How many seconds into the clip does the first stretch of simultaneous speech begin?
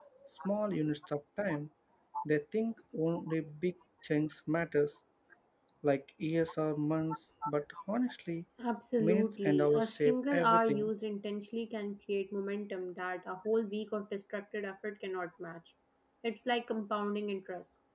9 s

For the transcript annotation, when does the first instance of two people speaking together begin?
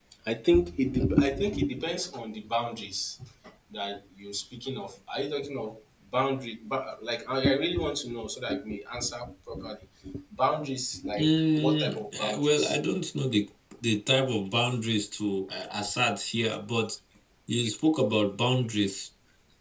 11 s

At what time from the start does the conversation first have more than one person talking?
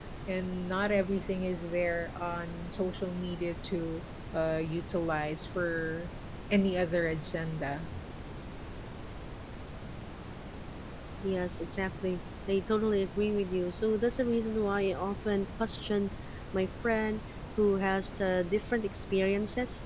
none

